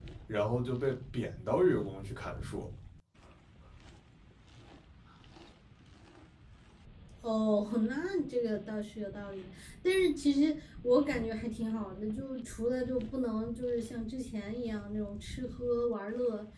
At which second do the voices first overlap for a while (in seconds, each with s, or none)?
none